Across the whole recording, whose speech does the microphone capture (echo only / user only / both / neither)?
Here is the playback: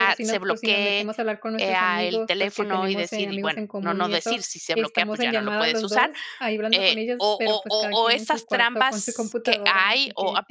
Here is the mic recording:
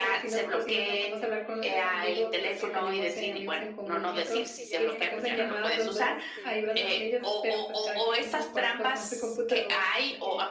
both